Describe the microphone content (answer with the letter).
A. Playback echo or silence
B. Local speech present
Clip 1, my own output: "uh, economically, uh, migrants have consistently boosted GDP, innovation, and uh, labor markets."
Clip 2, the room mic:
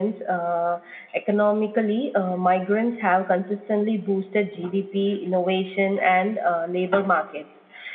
A